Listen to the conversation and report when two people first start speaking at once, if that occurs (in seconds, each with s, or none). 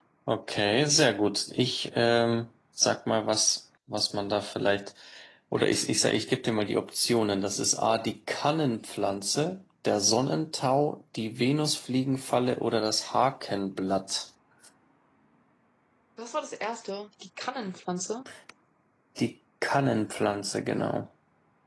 none